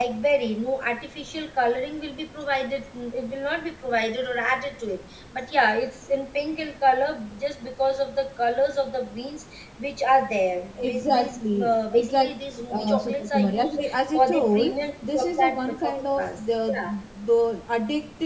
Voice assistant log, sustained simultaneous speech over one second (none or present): present